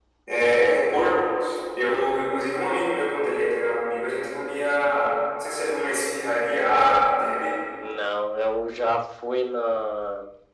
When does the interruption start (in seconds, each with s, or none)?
none